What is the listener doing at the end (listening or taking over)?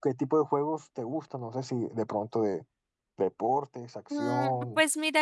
taking over